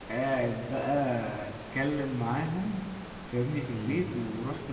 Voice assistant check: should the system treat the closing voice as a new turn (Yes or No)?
No